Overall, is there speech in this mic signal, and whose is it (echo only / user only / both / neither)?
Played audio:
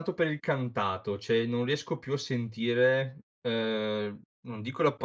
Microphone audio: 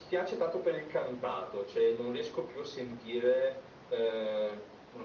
echo only